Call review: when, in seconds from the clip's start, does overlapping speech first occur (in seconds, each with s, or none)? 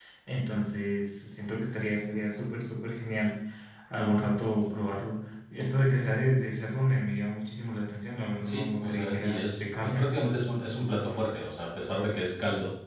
8.3 s